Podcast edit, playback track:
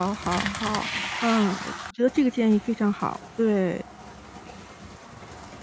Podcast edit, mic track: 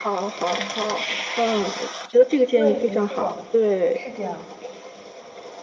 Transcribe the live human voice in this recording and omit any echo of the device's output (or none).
对，没错，是这样。